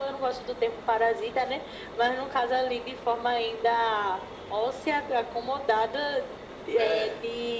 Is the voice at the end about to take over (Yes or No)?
No